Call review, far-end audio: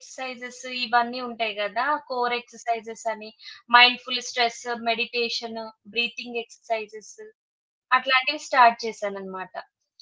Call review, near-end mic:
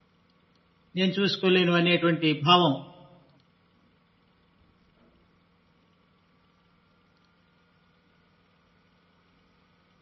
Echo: none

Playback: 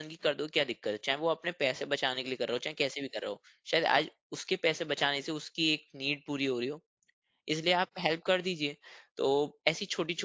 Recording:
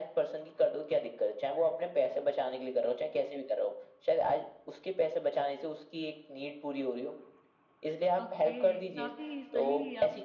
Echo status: present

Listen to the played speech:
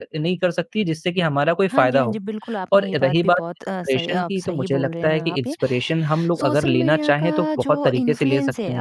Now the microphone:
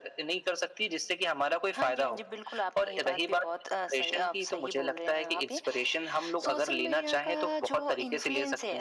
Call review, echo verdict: present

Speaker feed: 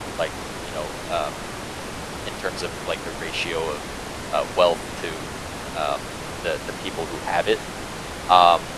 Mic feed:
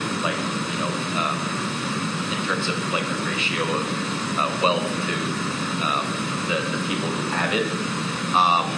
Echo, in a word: present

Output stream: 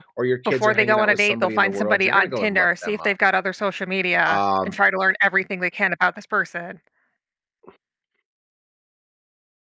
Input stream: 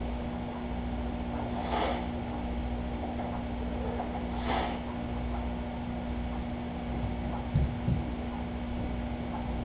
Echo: none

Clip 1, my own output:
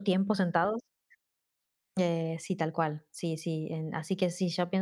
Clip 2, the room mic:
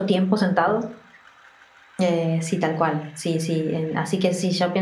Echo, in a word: present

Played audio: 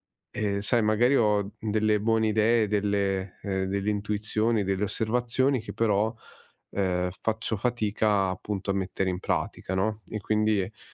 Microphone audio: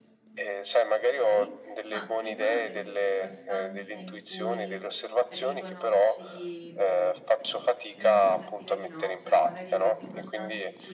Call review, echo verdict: present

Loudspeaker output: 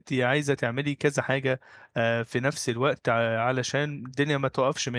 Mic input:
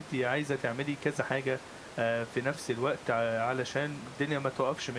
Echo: present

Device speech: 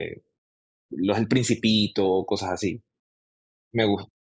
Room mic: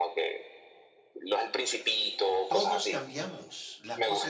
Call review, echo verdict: present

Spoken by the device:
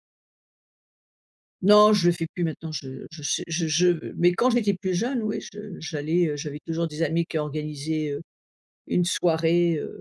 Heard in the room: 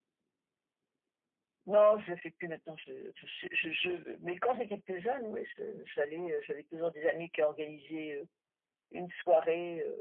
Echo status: present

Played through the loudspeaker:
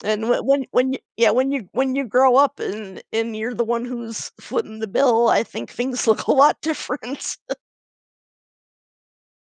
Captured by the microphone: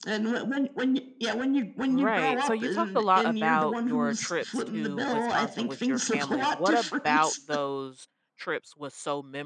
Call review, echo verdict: present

